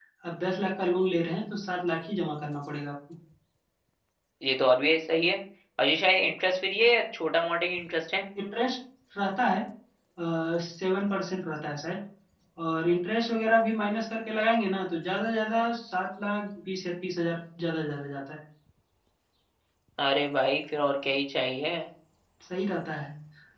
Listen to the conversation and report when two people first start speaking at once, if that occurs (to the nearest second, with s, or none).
none